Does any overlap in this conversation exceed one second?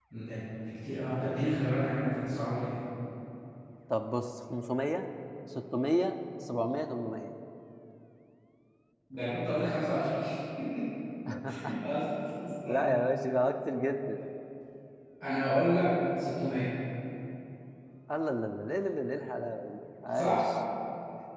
No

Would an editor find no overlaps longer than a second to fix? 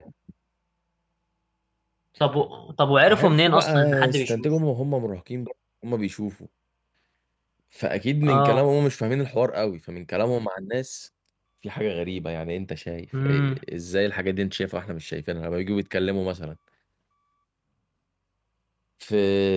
No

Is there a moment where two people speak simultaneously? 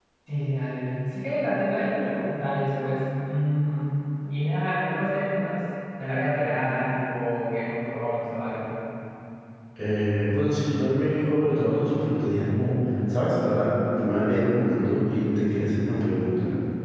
No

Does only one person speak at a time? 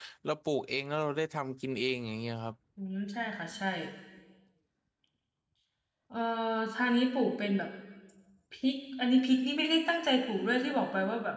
Yes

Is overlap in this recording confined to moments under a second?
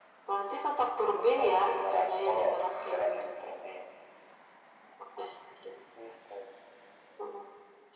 No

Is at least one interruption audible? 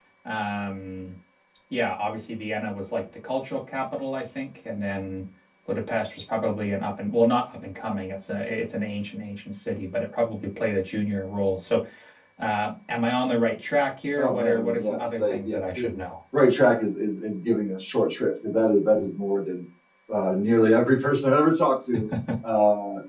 Yes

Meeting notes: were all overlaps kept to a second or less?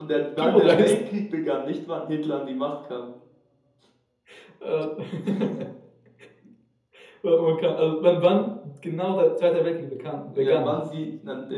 Yes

